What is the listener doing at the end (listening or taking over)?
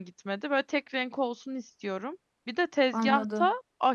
listening